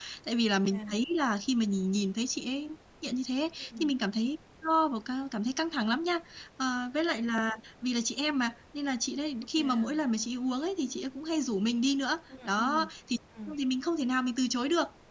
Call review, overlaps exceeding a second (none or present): none